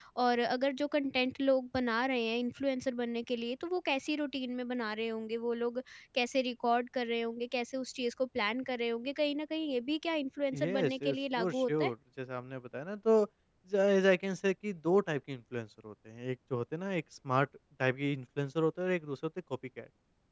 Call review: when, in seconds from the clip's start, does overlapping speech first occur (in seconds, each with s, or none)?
10.5 s